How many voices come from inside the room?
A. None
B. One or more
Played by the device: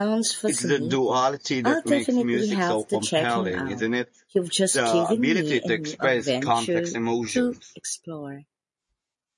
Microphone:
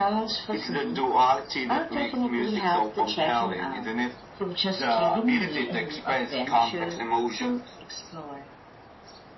A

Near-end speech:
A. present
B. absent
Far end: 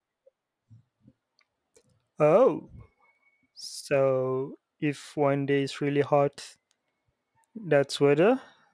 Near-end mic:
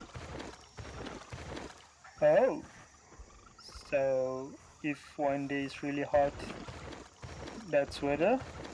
B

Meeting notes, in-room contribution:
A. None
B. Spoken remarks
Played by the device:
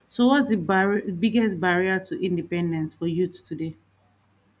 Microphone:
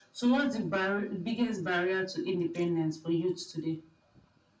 A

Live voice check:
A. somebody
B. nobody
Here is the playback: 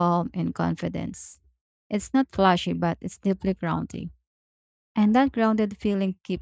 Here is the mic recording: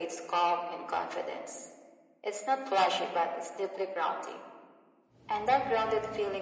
B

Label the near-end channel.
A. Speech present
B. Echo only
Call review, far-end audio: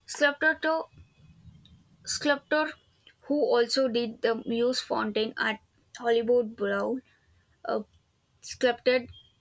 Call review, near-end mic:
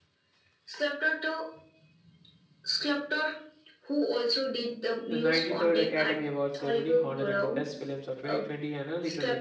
A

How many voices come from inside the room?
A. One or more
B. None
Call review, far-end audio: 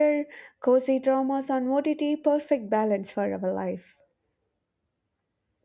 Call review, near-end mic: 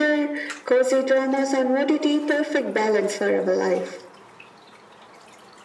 B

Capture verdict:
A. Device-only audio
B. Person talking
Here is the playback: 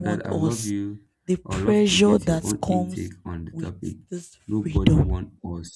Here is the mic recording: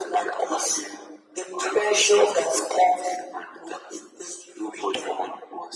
A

